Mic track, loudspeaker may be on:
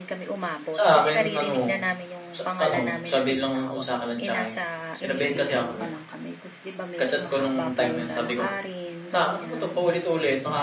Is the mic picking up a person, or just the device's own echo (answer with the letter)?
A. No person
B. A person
B